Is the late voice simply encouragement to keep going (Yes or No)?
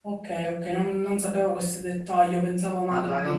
No